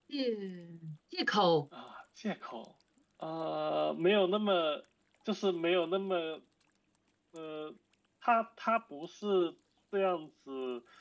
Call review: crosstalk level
none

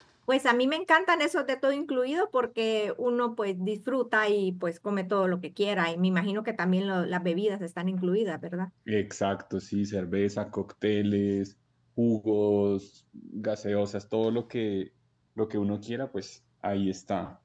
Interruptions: none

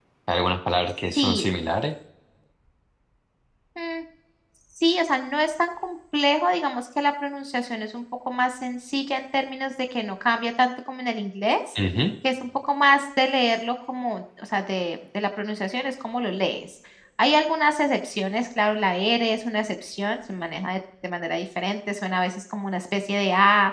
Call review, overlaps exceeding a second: none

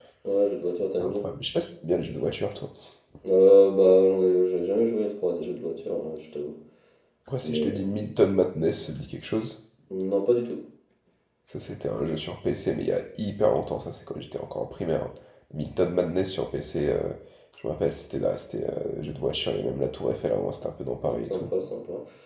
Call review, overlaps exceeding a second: none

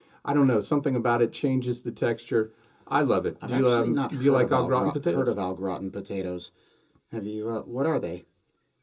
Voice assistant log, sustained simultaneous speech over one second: present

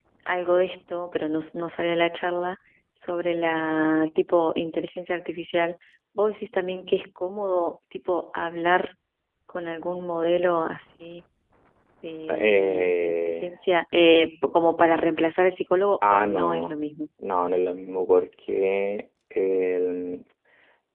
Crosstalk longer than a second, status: present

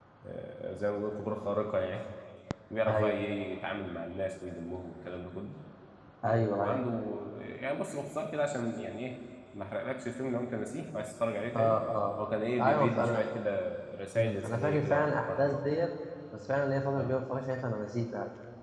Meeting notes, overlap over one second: present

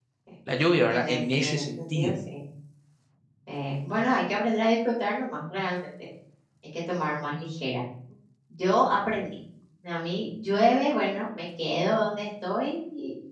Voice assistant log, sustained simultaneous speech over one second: present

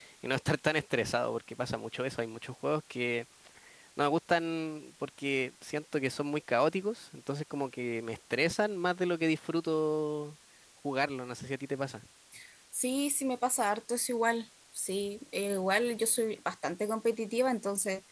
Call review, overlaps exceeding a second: none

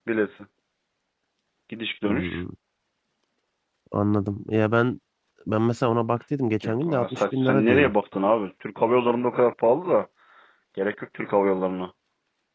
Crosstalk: present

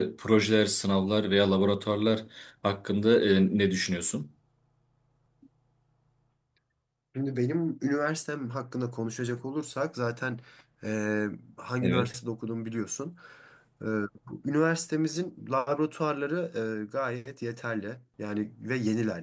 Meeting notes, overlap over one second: none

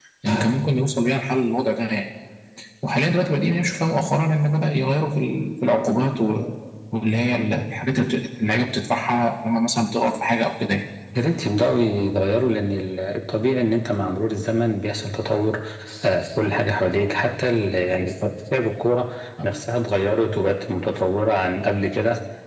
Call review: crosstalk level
none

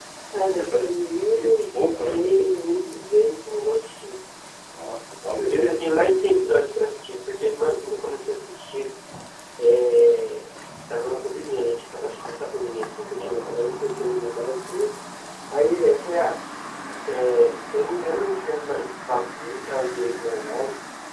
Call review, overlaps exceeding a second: present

